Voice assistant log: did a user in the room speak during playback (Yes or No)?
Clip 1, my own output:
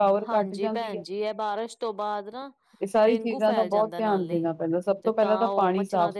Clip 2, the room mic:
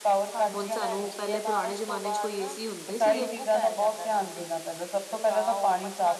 Yes